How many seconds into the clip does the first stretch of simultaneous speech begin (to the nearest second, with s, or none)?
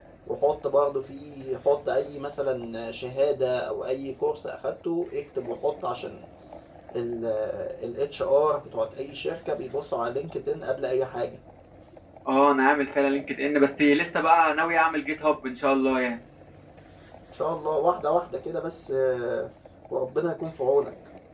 none